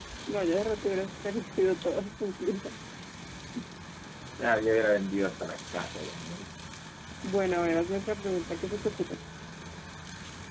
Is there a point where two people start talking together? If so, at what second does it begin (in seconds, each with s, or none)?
none